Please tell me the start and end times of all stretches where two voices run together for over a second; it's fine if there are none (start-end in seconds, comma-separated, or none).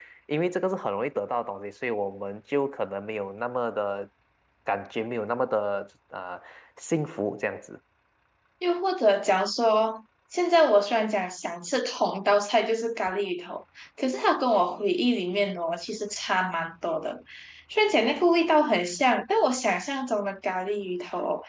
none